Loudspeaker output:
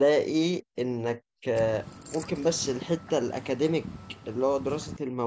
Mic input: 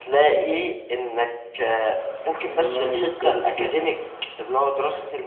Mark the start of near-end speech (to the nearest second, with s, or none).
3 s